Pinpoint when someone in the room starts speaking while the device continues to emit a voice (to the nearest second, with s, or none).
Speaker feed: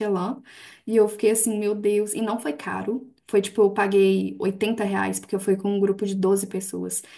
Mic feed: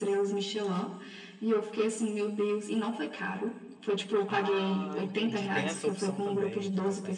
4 s